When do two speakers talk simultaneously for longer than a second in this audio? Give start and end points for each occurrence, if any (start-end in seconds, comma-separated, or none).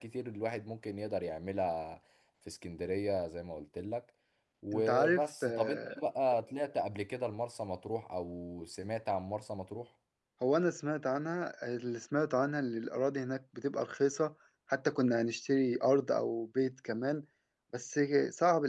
4.7-6.0